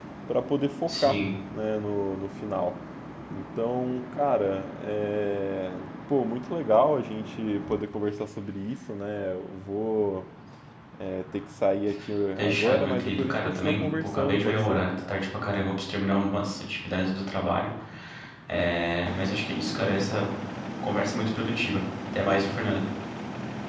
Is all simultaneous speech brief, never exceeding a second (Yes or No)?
No